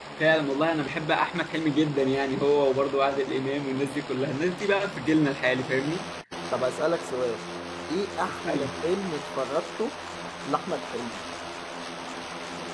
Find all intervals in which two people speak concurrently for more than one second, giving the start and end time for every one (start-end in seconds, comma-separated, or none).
none